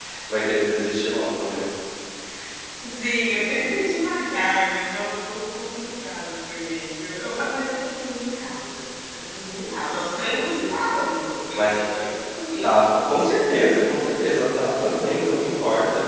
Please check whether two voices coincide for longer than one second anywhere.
No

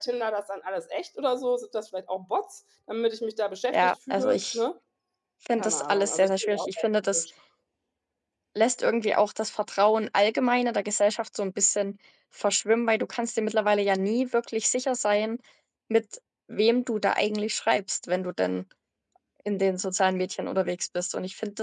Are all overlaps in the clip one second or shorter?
No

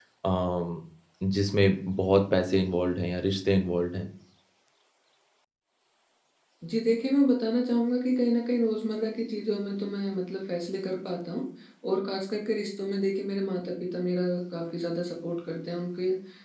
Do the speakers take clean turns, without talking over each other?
Yes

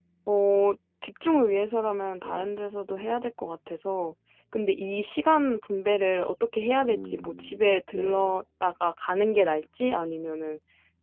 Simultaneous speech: Yes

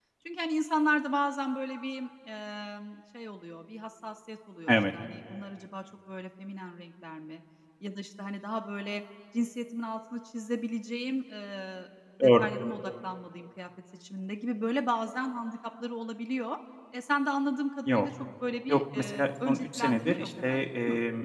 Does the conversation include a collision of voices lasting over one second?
Yes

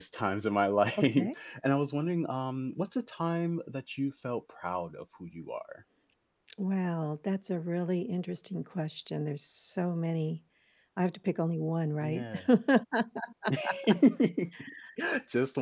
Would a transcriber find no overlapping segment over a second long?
Yes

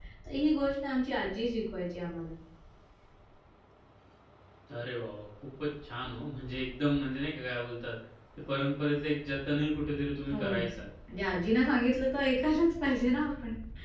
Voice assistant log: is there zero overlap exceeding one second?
Yes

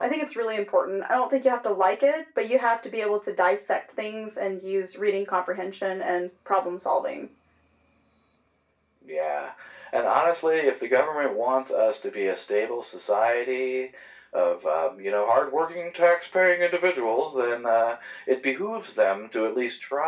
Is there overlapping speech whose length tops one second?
No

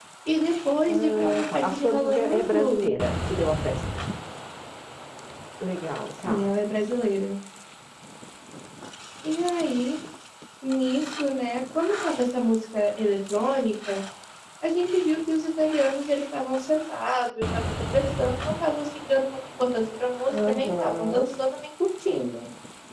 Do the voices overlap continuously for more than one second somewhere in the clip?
Yes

